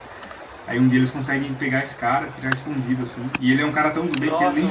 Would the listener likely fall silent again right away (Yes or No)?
No